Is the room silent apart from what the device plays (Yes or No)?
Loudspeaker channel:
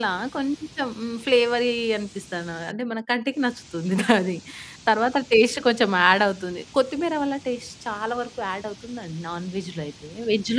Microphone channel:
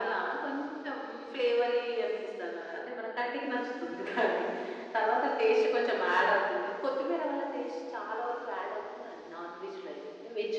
Yes